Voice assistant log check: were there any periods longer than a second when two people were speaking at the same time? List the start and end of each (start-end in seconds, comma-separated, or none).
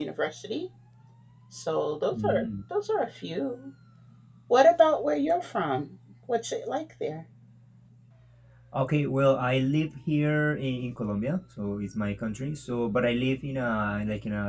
none